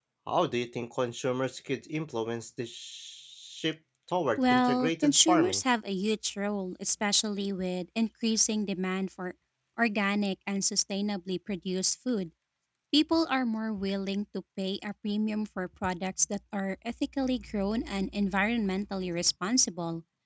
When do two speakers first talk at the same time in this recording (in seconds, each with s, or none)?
4.4 s